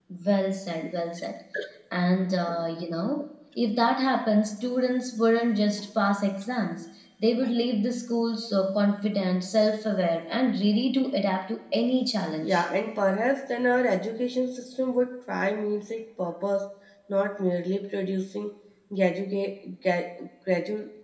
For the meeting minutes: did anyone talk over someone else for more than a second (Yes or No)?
No